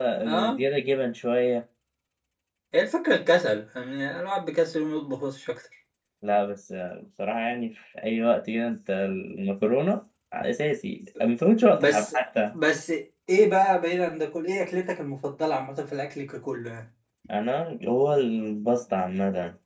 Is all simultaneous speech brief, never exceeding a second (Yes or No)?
Yes